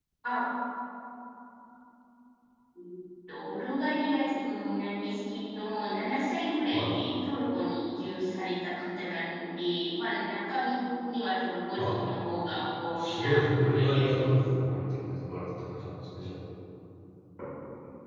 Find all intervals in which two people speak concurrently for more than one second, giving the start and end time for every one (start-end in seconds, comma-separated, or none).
13.0-14.4